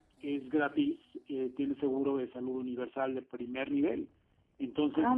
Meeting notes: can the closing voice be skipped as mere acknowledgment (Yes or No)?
Yes